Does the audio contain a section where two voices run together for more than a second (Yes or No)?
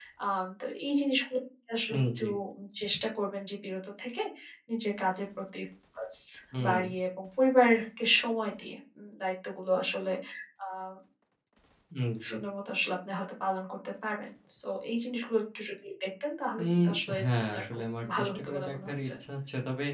Yes